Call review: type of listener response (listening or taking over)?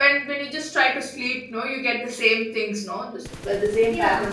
taking over